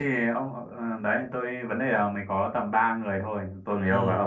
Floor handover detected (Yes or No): No